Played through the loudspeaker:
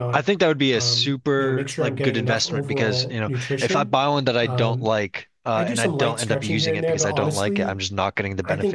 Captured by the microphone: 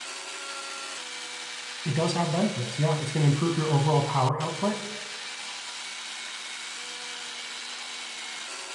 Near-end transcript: it does have benefits. Yeah, it's going to improve your overall power output.

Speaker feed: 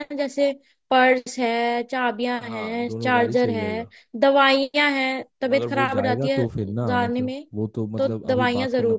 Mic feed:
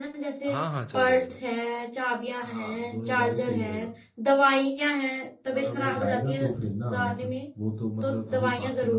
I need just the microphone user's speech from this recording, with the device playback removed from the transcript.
हाँ हाँ चल जाएगा

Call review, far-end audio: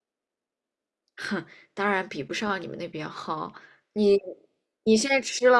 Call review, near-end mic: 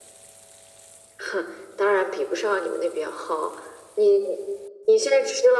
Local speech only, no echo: none

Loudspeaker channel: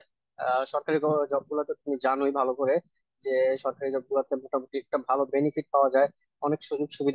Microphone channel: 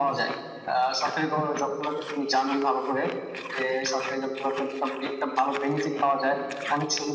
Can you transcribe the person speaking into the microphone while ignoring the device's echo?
none

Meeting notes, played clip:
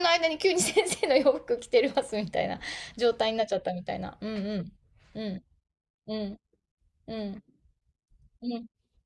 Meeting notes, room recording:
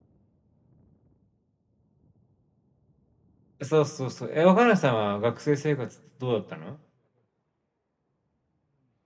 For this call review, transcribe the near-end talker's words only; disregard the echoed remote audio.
そうそうそう。え、若菜さんは学生生活どうだったの

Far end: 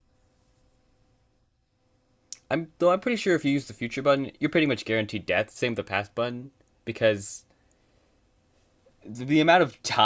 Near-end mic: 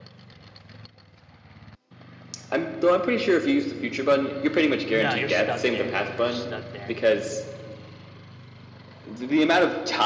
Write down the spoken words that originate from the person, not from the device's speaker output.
No, you're stuck there. You're just stuck there.

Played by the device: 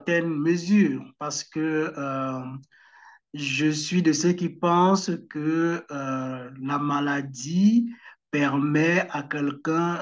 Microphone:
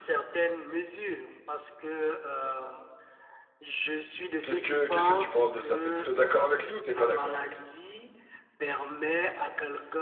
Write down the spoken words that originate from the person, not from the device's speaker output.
Qu'est-ce que, qu'est-ce que tu penses de ça? T'es plutôt d'accord avec lui ou t'es pas d'accord avec lui?

